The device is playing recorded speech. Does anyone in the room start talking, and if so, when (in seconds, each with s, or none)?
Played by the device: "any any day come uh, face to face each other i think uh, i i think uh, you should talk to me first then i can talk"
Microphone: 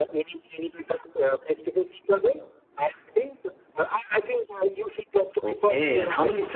5.4 s